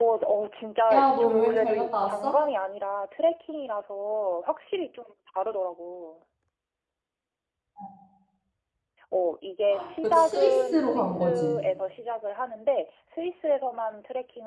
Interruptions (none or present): present